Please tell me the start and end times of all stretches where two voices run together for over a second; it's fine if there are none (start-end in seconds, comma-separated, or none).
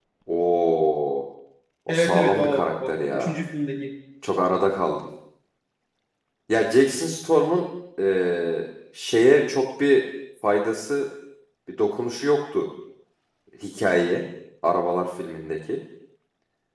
1.9-3.3